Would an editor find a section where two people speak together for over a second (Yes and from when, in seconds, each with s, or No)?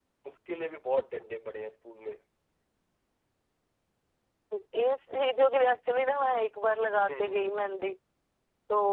No